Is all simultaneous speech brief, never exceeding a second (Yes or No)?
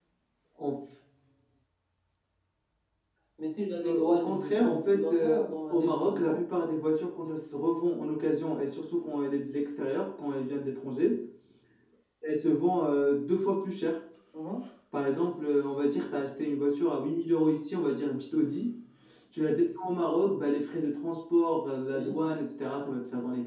No